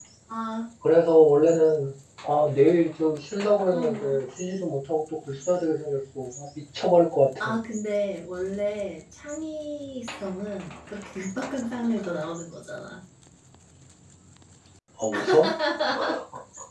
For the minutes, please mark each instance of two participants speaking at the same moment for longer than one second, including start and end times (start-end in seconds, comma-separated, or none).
none